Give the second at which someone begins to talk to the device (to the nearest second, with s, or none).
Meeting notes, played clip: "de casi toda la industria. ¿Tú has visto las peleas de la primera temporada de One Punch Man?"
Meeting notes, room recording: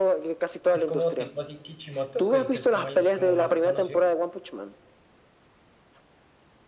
1 s